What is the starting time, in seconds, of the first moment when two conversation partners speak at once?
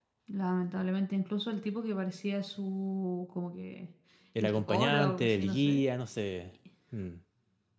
4 s

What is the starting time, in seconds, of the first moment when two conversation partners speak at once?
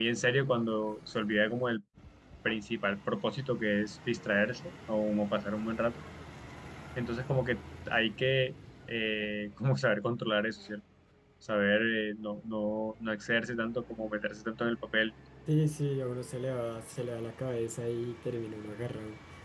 none

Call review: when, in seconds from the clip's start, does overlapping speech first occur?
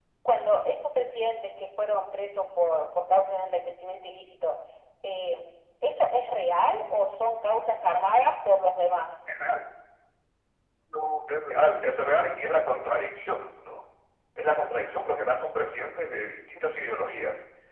none

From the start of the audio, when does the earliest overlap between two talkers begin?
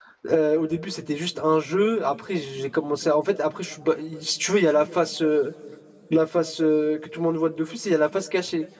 none

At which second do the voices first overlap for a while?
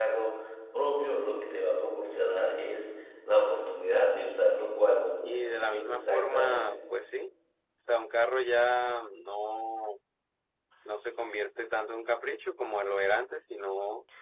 5 s

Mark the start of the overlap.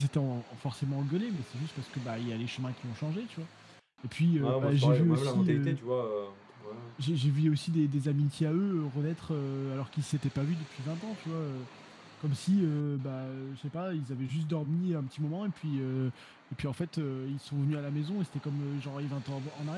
4 s

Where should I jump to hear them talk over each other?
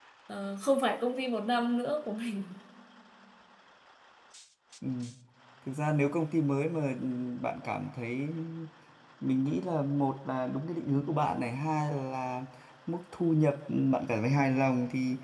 none

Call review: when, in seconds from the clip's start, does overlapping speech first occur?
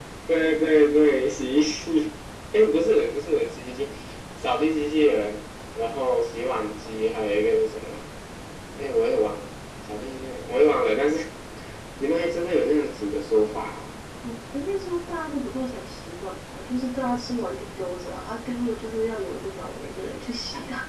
none

